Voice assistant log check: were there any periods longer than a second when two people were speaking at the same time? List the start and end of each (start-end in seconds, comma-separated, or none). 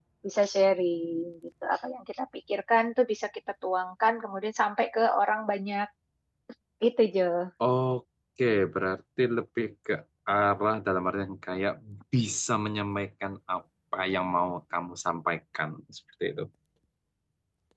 none